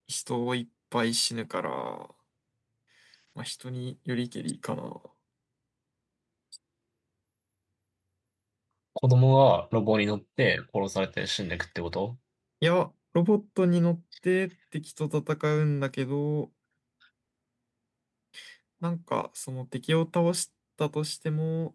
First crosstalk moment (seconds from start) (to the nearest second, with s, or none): none